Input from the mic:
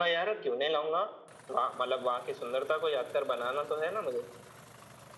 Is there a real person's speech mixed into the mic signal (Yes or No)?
No